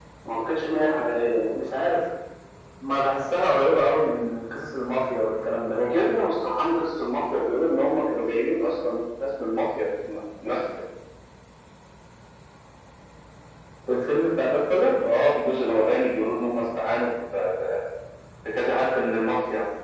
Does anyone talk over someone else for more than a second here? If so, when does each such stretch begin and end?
none

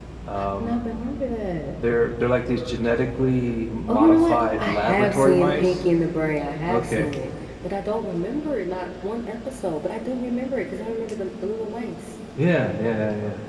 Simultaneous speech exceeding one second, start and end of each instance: 3.9-5.8

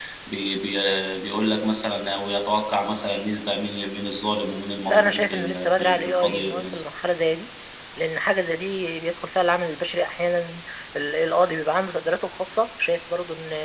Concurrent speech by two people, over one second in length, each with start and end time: 4.8-6.8

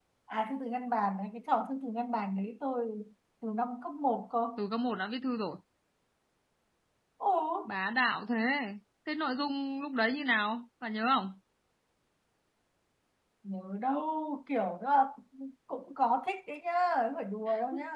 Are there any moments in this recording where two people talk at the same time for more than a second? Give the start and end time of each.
none

